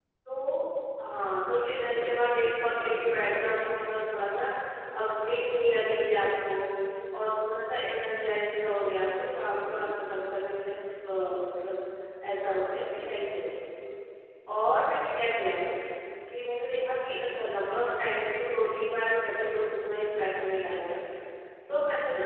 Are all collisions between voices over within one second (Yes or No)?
No